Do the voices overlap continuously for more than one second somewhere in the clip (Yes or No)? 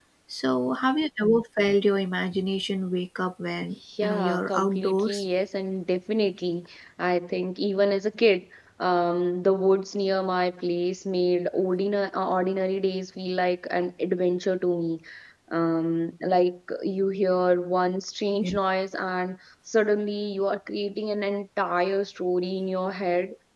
Yes